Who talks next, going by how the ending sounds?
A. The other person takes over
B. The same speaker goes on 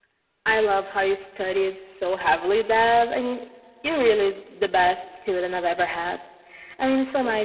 B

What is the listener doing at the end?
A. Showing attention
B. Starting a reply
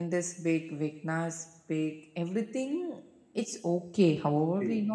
A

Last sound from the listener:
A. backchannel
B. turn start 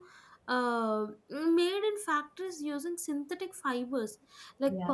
A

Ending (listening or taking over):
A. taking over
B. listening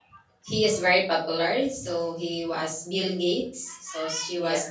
B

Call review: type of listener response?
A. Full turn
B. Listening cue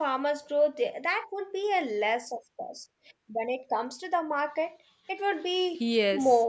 A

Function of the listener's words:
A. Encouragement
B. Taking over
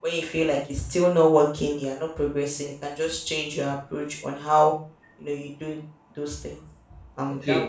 B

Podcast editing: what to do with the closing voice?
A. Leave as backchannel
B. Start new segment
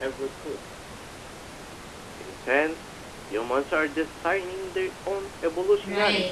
B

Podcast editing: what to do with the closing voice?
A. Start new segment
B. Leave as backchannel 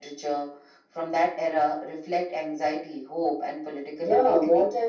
A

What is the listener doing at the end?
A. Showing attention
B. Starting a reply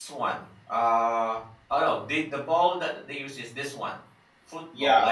B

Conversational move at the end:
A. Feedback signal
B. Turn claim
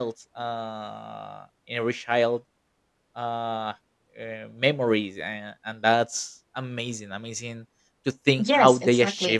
B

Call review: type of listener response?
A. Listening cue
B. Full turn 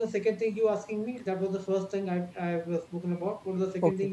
B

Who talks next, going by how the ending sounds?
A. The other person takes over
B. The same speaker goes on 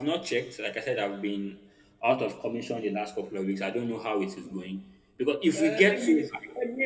A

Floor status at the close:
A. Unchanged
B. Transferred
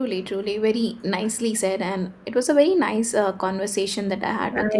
B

